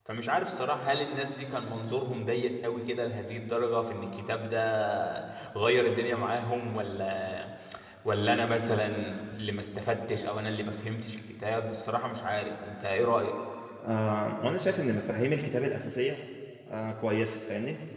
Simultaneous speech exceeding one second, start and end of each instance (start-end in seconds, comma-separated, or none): none